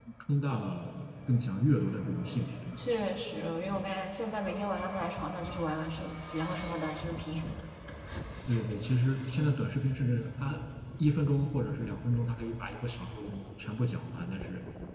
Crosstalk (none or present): none